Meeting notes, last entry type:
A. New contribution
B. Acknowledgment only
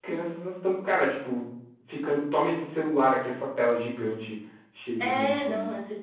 A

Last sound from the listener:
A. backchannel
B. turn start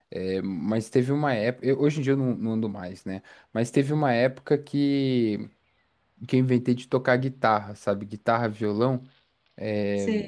A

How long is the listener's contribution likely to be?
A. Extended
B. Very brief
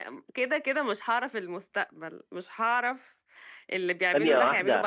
B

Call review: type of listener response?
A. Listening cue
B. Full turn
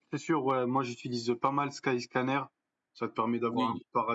A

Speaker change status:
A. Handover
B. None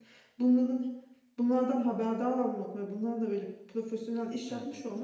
B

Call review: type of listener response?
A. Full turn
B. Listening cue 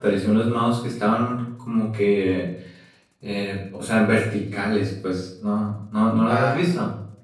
A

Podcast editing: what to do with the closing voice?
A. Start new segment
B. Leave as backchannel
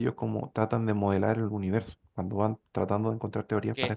B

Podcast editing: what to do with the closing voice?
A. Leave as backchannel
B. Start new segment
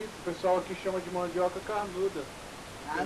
B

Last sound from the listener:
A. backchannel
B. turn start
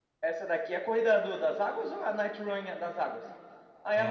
B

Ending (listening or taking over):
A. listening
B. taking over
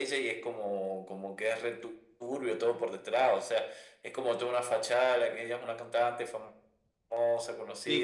B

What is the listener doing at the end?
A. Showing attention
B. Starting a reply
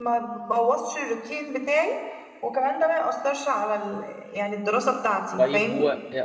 B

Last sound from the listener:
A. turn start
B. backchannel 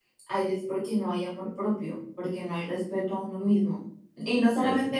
B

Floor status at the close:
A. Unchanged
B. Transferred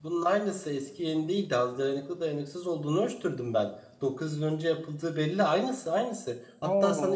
A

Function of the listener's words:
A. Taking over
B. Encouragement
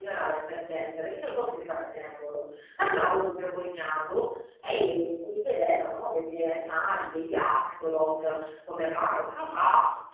B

